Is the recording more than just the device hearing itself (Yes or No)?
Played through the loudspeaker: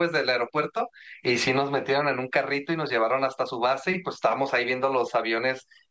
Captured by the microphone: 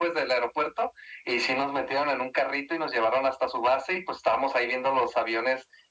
No